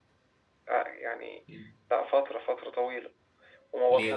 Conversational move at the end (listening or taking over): listening